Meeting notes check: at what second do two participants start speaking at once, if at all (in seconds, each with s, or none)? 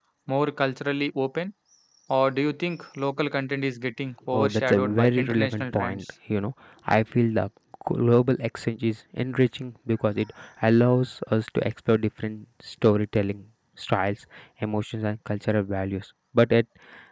4.3 s